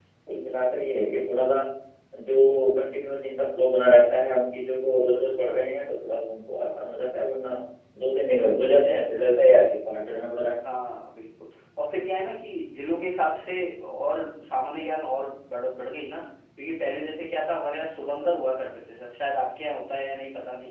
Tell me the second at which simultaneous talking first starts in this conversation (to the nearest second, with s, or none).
none